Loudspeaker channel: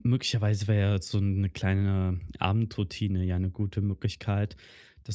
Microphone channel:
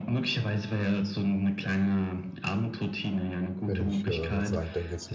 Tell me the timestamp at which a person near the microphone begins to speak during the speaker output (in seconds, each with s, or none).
3.6 s